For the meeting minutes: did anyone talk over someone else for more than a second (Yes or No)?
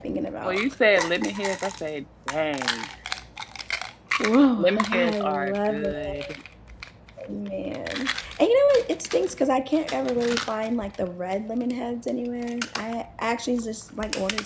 Yes